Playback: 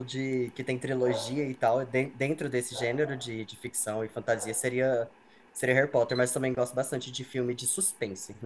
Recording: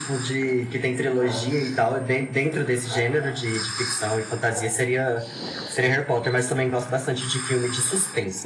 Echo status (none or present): present